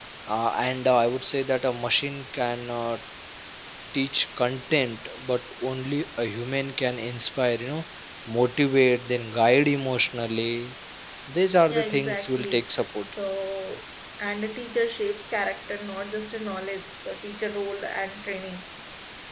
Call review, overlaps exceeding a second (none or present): present